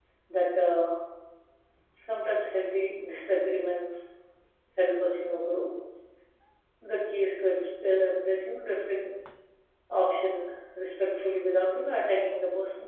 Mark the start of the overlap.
none

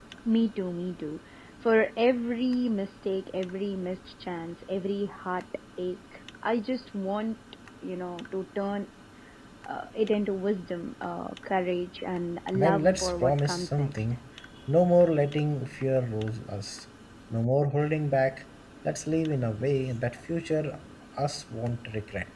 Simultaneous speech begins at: 12.5 s

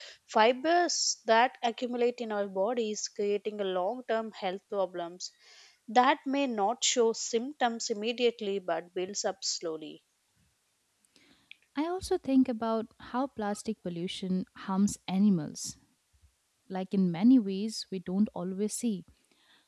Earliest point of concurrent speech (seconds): none

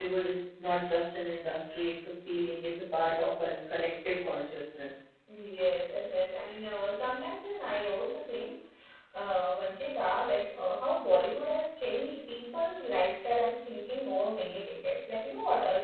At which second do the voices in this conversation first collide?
none

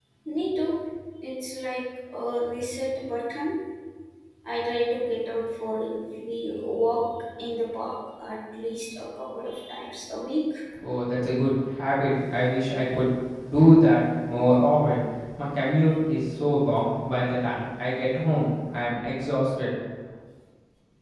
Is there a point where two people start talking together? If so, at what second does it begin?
none

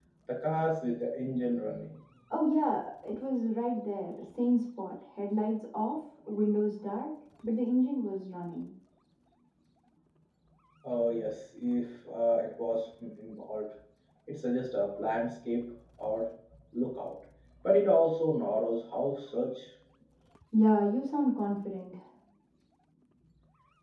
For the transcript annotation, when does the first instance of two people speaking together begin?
none

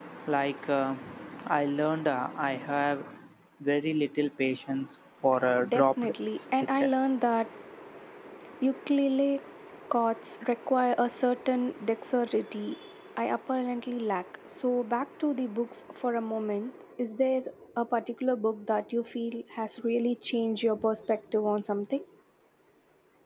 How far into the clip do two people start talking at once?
5.7 s

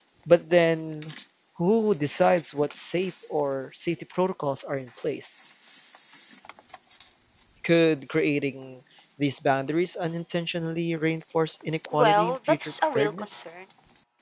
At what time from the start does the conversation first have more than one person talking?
11.9 s

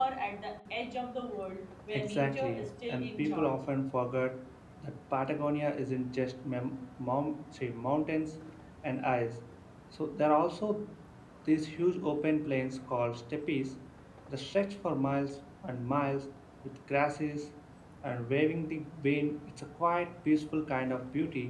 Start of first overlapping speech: 1.9 s

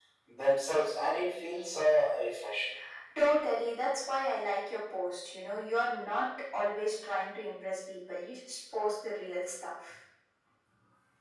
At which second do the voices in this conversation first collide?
none

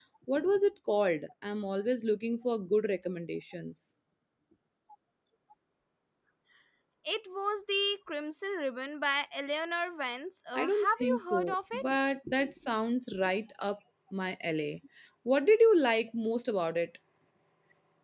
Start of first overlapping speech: 10.6 s

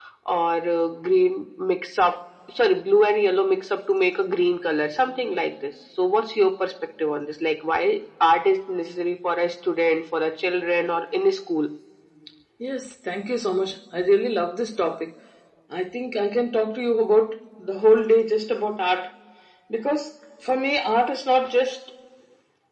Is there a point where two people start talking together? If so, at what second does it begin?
none

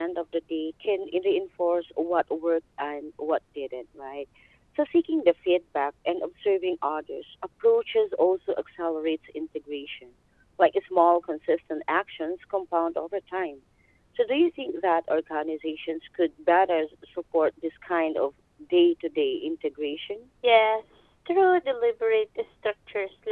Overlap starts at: none

